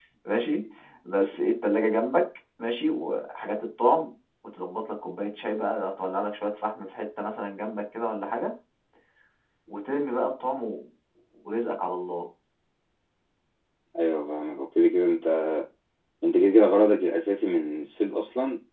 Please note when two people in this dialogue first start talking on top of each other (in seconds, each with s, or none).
none